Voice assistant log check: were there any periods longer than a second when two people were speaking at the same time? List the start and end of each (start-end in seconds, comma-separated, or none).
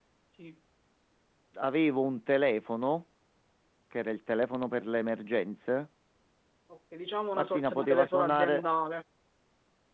7.3-8.6